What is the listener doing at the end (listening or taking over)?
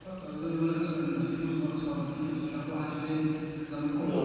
listening